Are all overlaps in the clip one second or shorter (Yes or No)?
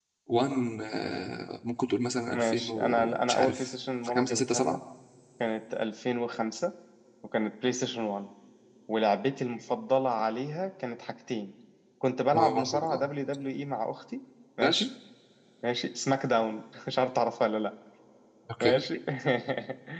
No